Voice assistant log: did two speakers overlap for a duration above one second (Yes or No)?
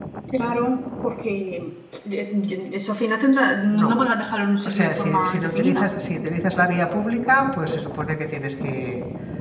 Yes